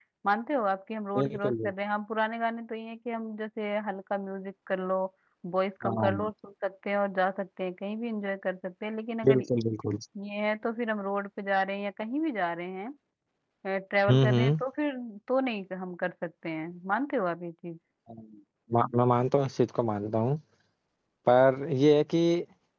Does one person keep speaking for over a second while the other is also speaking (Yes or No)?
No